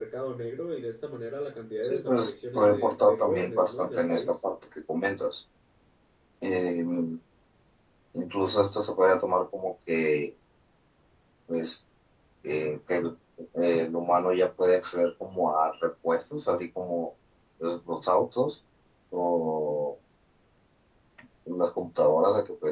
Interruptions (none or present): present